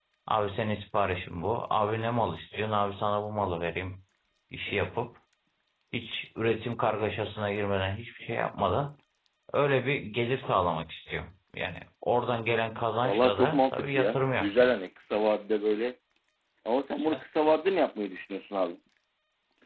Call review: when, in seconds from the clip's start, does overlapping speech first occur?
13.0 s

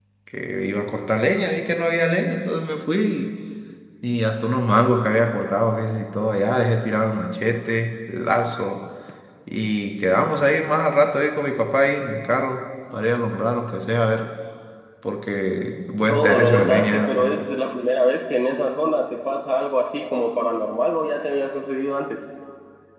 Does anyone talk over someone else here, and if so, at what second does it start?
16.1 s

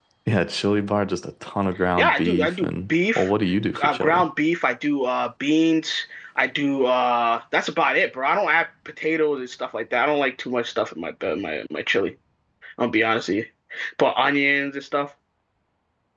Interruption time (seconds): 2.0 s

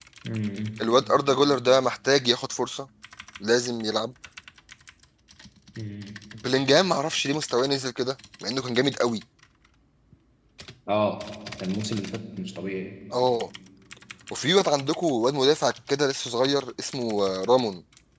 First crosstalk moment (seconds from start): none

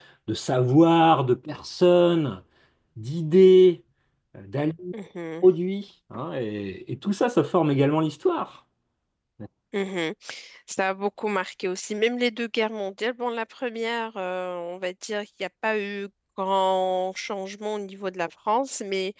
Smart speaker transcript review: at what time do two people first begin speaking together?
none

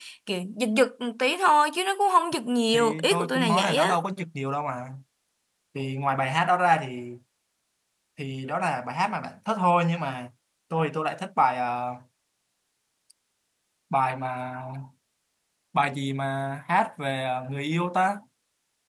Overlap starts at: 2.7 s

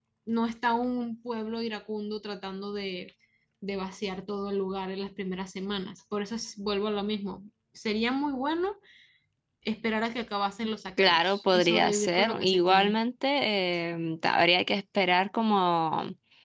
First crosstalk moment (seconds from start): 11.0 s

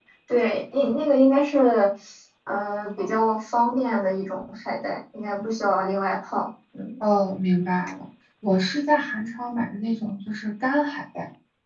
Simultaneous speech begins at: none

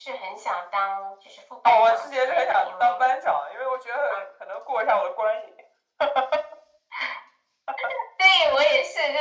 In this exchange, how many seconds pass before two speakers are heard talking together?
1.6 s

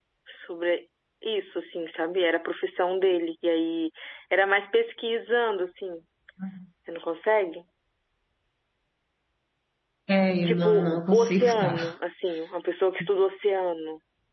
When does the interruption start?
10.4 s

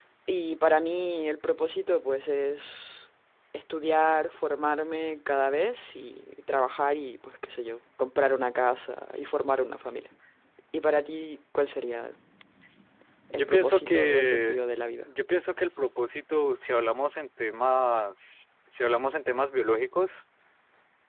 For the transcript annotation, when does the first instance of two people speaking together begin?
13.3 s

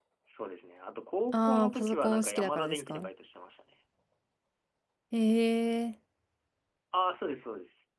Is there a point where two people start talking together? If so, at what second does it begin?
1.3 s

